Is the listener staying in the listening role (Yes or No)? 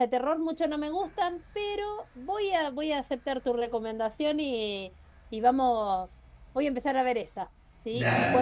Yes